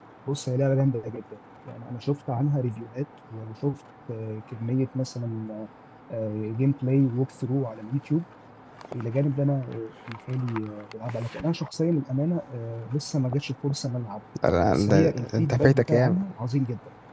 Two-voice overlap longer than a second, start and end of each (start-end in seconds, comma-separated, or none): 14.7-16.2